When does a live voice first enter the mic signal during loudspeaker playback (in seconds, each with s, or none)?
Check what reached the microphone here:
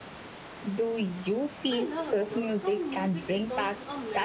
1.7 s